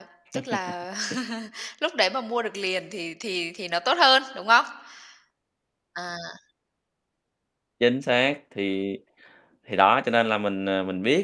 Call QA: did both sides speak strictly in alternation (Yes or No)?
Yes